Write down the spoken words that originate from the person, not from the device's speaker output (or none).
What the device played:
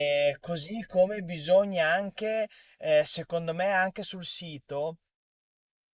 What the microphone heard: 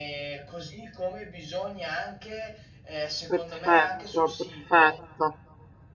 perfetto, perfetto,